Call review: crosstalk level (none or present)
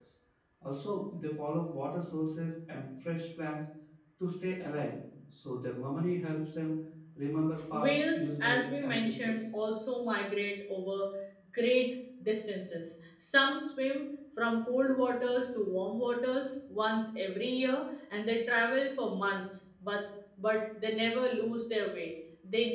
present